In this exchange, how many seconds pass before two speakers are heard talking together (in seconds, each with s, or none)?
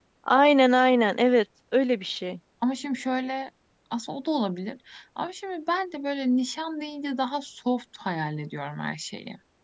none